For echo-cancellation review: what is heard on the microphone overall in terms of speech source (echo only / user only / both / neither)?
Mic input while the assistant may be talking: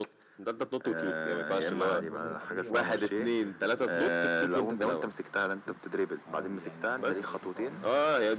both